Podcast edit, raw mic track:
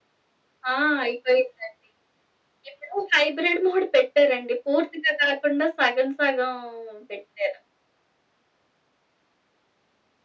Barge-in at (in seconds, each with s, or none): none